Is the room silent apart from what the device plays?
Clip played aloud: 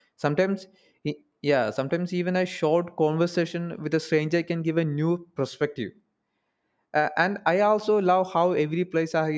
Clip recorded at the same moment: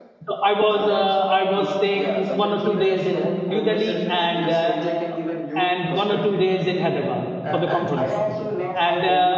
No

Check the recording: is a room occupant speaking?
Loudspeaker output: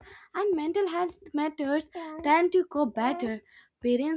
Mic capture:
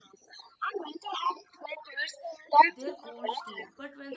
Yes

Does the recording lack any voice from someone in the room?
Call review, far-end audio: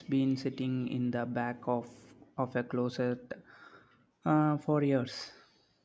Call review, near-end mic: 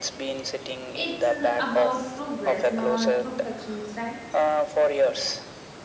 No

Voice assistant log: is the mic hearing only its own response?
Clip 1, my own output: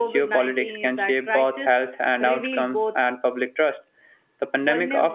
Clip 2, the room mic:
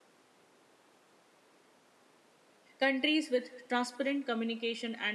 No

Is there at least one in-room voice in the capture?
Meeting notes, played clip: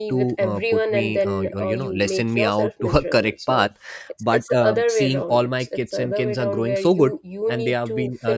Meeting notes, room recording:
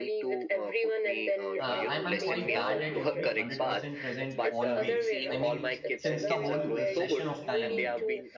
Yes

